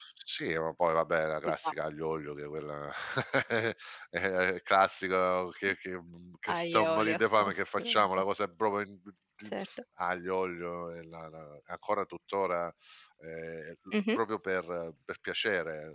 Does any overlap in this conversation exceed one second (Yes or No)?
Yes